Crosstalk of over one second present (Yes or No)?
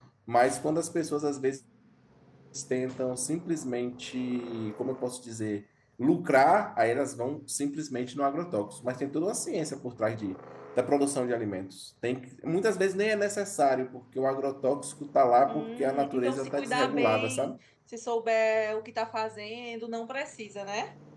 Yes